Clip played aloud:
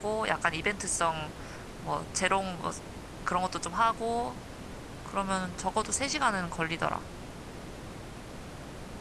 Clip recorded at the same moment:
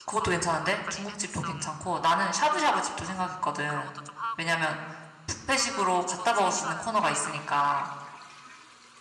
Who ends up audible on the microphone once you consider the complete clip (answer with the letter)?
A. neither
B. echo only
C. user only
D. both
D